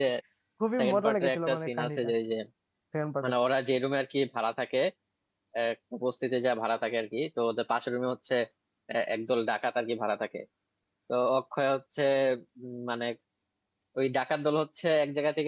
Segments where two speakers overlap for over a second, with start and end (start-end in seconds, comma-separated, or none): 0.8-2.1